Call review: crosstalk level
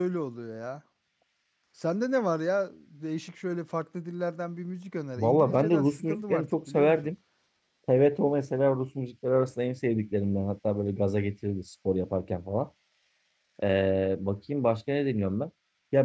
present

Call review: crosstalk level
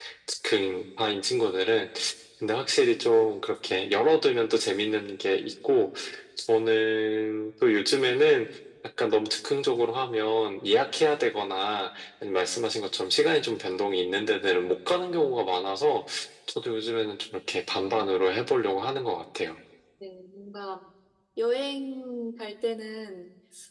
none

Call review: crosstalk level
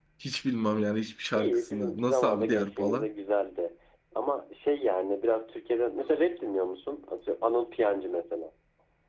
present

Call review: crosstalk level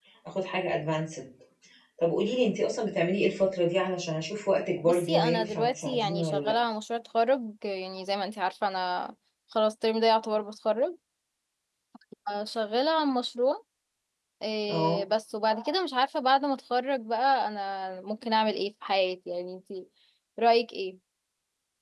present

